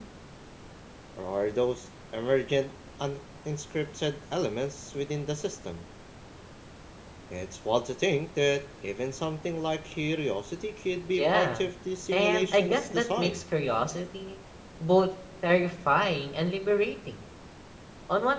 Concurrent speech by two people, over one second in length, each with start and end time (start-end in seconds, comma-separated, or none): 12.1-13.4